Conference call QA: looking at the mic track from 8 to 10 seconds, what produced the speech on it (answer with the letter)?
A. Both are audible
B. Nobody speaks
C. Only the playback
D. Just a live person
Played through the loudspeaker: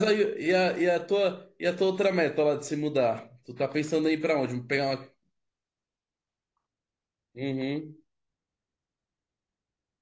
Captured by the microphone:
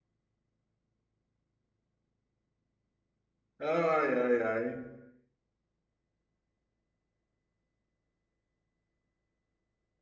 B